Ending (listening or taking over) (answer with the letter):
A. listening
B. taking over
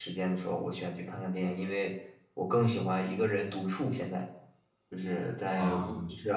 A